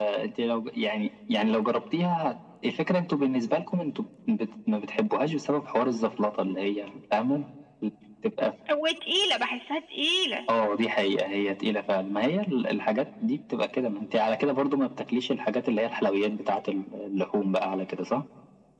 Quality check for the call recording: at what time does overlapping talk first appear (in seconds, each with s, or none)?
none